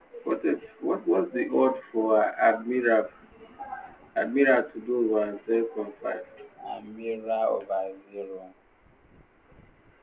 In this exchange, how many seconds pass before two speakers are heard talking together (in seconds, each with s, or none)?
none